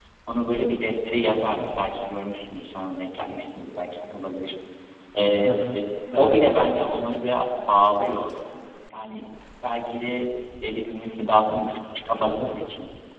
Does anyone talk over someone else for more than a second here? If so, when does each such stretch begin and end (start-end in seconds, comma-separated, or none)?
none